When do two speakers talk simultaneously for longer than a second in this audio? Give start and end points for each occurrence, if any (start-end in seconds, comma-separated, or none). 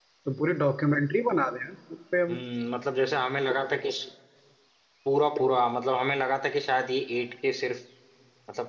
none